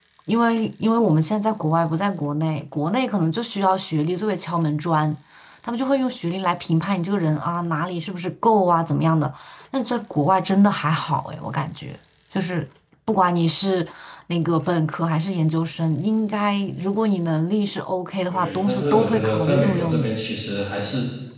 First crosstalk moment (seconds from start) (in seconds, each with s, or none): 18.3 s